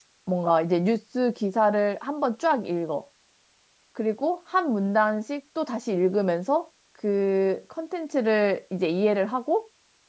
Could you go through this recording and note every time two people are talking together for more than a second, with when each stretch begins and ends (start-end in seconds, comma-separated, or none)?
none